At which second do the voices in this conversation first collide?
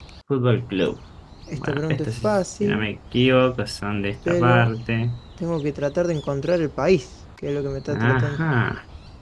1.5 s

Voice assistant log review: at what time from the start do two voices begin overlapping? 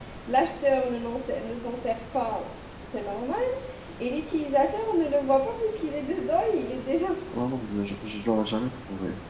none

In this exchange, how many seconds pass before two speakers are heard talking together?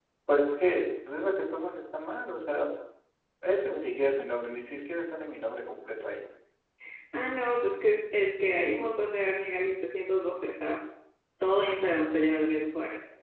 none

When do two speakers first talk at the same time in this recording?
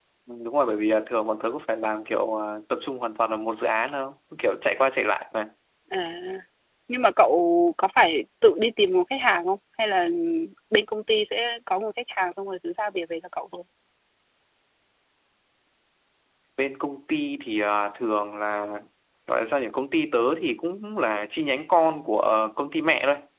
none

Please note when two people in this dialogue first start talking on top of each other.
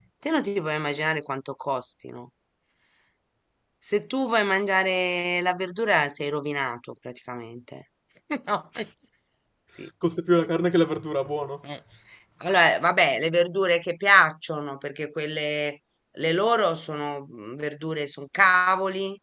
none

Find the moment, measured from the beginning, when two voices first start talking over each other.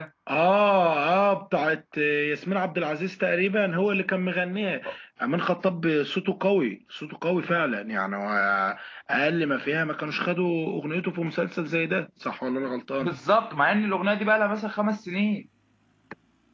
none

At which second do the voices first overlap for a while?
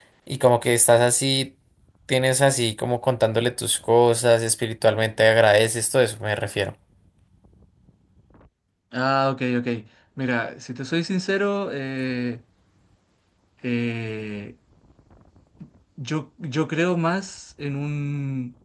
none

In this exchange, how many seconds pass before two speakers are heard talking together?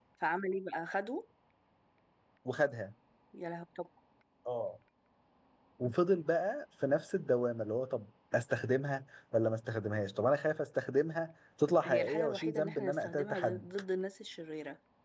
11.8 s

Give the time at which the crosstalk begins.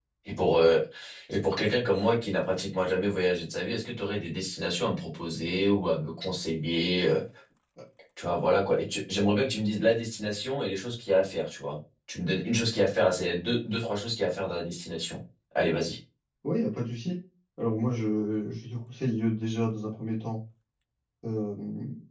none

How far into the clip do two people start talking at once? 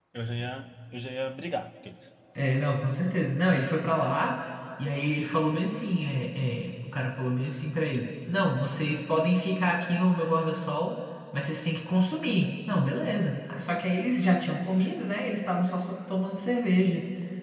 none

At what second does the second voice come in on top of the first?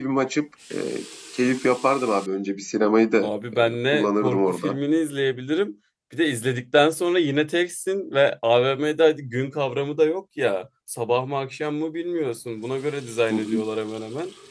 3.2 s

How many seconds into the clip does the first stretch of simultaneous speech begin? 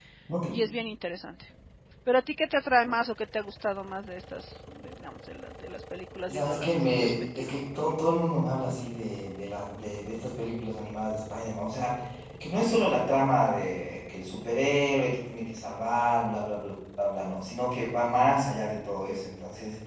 6.3 s

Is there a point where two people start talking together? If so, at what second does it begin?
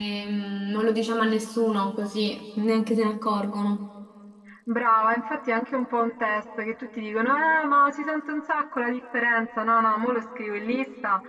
none

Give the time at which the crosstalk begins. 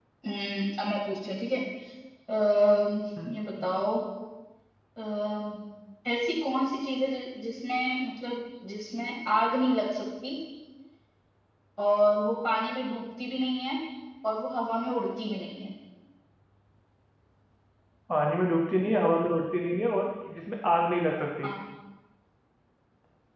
none

